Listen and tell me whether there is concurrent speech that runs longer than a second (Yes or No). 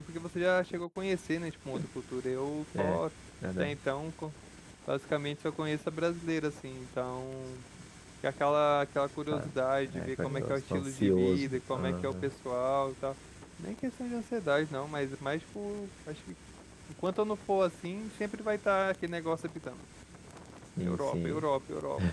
Yes